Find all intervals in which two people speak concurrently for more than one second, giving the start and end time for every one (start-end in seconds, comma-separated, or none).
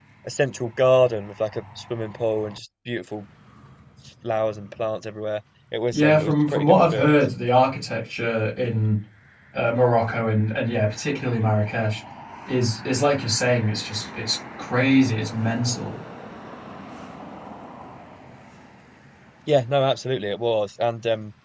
5.9-7.2